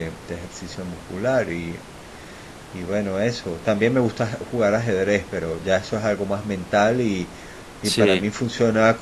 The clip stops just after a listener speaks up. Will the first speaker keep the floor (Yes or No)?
Yes